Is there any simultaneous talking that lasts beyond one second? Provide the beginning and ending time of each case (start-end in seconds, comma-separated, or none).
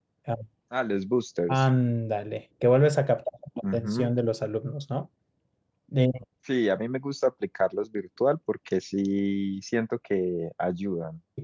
none